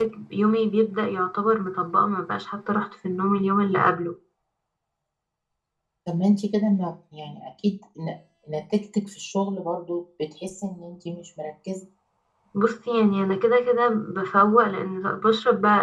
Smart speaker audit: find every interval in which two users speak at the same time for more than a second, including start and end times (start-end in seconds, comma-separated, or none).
none